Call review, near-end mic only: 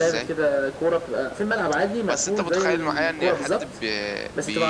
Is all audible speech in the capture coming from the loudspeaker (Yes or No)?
No